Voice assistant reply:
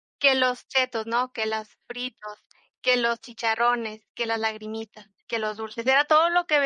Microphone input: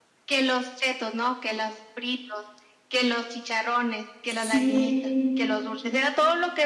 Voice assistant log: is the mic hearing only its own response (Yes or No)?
No